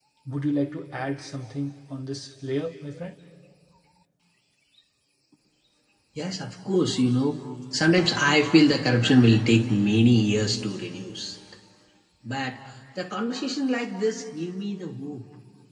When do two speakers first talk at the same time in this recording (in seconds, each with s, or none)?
none